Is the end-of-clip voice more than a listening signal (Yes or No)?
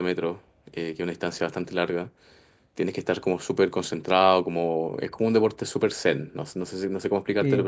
Yes